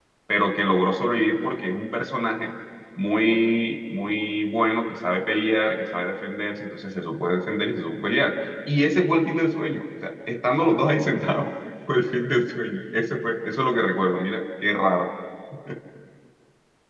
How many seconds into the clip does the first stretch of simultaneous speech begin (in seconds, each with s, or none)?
none